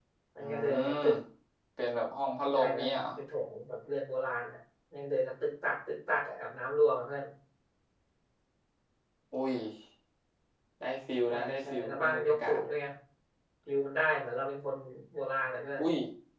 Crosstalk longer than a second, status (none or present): present